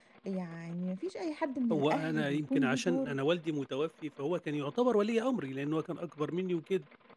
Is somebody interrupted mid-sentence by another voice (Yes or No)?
Yes